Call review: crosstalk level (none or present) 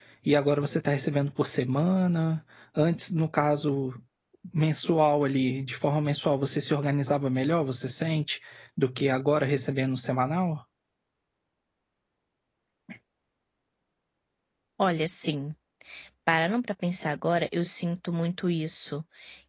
none